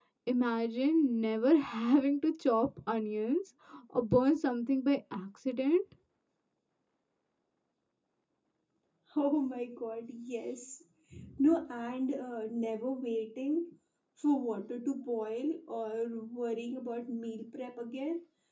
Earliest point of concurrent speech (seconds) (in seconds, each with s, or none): none